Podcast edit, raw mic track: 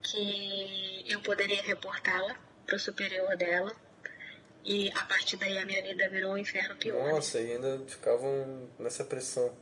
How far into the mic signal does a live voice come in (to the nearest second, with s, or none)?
7 s